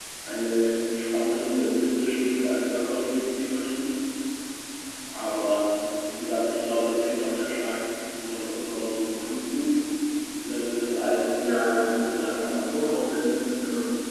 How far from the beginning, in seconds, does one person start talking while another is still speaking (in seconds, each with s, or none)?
11.4 s